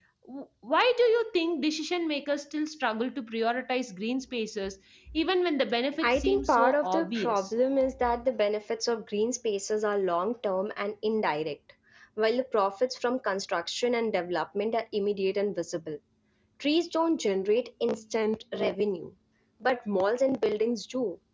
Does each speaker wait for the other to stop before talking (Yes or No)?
No